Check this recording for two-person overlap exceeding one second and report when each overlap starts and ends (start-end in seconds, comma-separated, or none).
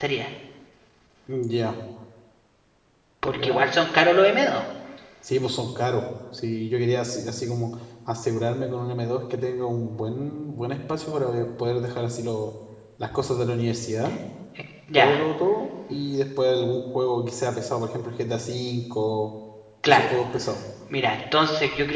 none